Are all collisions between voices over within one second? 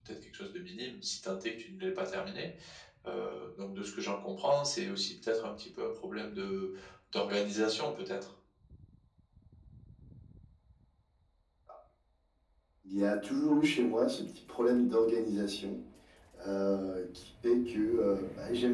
Yes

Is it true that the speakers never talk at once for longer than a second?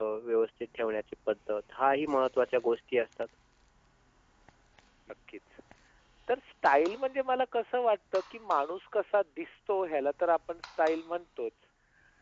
Yes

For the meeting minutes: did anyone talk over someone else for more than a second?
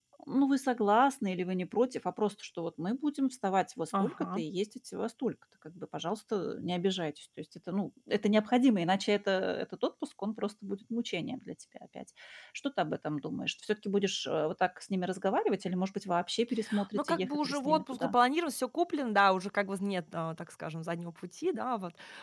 Yes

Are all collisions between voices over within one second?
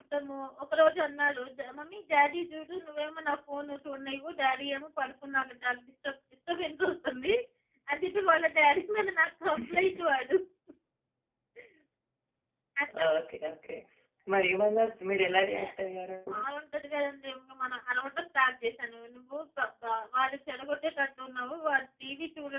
Yes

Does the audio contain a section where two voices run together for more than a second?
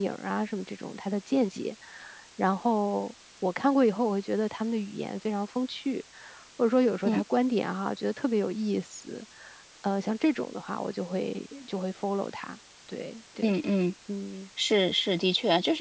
No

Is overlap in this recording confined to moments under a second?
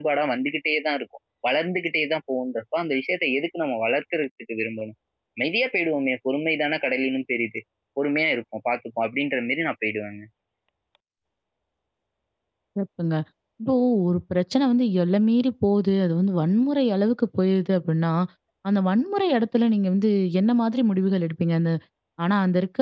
Yes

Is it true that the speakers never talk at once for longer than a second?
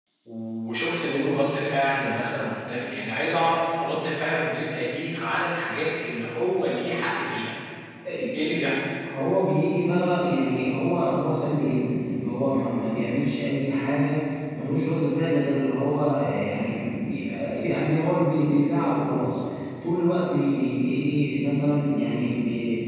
Yes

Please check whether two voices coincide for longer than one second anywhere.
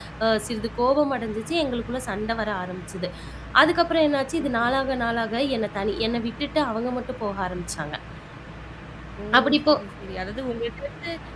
No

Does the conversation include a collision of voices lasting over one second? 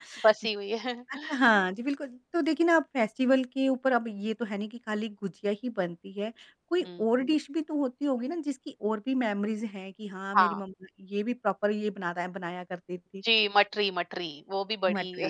No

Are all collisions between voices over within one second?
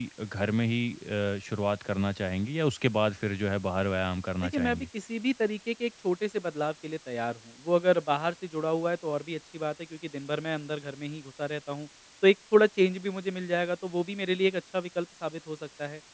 Yes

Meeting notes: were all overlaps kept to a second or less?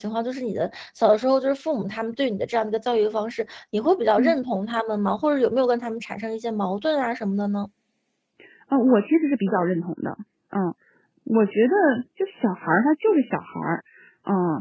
Yes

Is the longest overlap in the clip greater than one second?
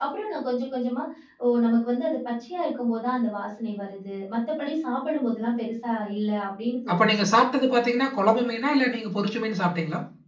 No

